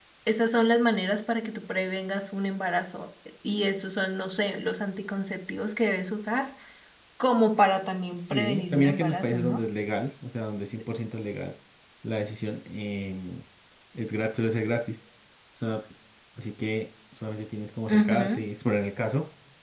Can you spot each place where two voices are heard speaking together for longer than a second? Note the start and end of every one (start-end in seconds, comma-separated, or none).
8.2-9.6